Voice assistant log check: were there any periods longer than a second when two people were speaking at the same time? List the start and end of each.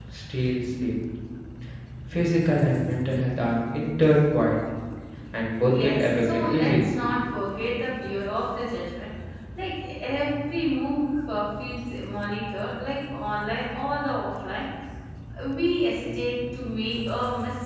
5.7-6.9

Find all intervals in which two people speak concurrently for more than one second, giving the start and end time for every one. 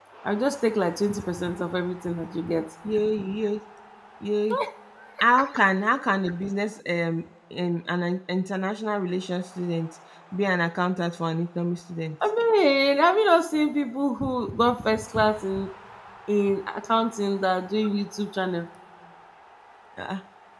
none

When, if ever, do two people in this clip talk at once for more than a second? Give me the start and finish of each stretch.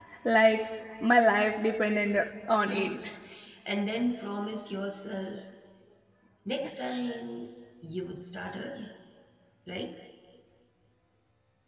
none

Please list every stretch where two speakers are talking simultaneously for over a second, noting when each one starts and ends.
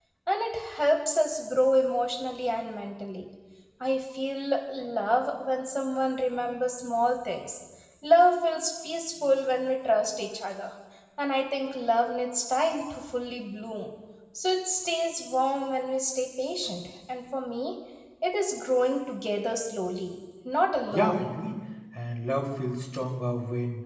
none

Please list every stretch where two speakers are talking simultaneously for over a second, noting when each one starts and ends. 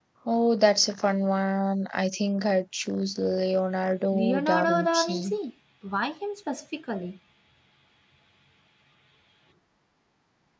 4.1-5.4

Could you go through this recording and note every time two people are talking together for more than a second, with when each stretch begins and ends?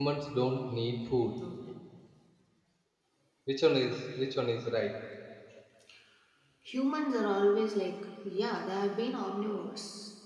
none

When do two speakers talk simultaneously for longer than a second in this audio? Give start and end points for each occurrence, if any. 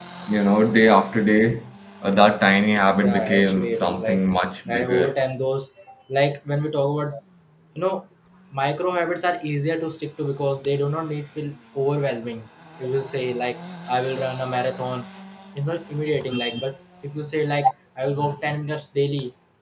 3.0-4.2

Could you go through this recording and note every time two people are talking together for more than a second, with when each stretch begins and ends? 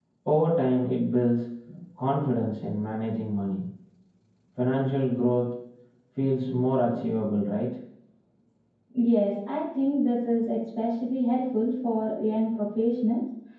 none

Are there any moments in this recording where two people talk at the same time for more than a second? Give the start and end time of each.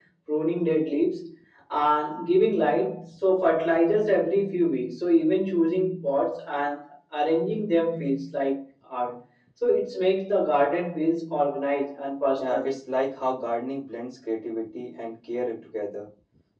none

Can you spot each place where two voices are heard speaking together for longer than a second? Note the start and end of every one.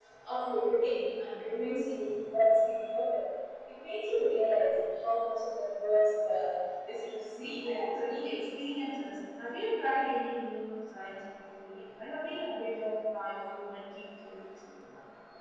7.4-8.7

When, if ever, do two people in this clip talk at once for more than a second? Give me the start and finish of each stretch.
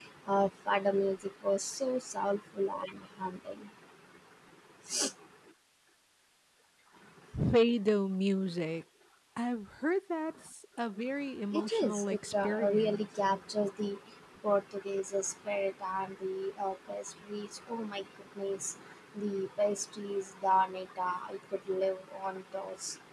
11.5-13.1

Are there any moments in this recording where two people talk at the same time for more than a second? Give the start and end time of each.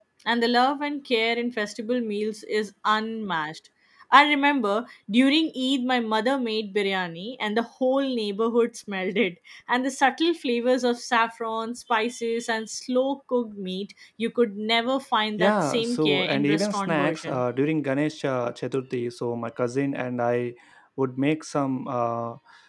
15.4-17.4

